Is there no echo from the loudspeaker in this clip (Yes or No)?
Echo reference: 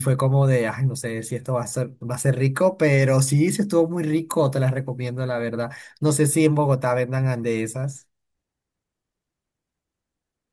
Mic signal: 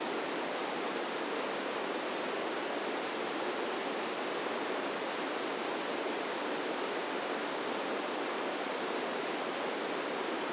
Yes